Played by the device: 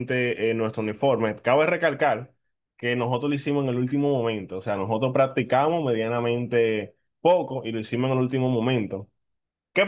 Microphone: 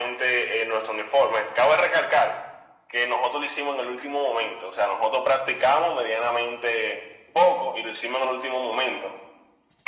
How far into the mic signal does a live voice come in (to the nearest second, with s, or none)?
none